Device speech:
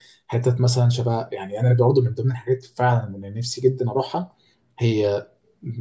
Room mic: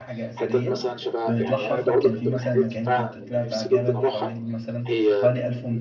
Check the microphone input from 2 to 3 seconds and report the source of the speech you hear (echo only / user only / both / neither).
both